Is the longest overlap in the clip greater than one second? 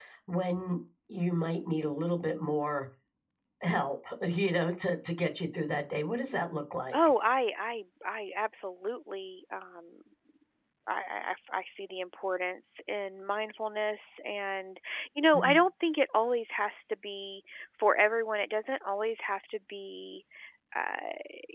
No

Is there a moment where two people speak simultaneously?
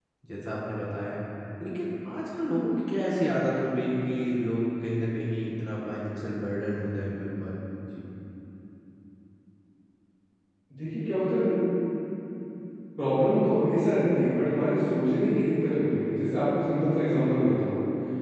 No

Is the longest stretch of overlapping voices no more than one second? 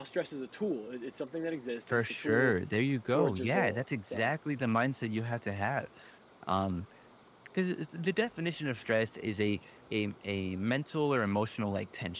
No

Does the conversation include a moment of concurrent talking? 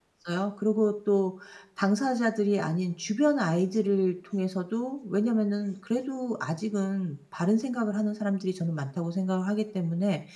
No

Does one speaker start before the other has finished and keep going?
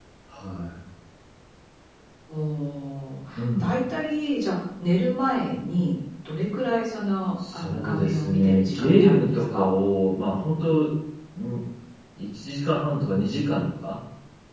Yes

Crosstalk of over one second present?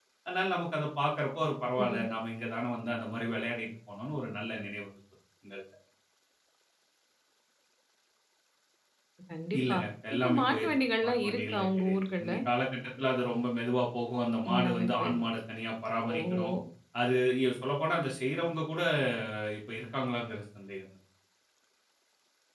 Yes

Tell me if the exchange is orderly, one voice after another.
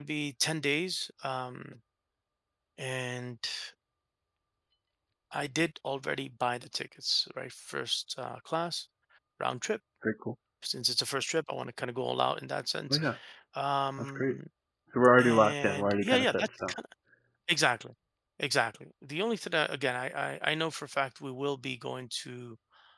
No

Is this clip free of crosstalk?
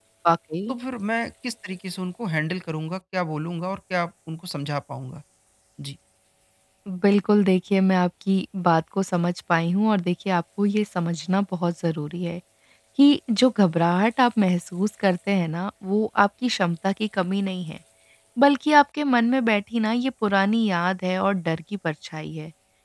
Yes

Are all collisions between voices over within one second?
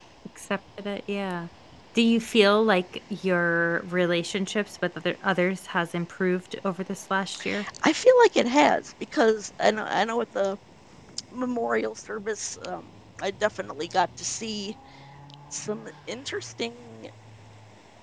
Yes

